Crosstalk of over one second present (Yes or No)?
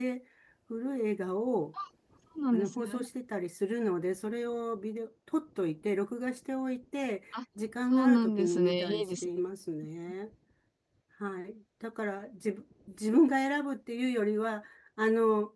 Yes